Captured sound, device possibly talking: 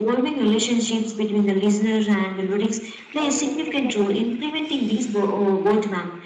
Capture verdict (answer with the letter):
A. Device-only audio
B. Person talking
B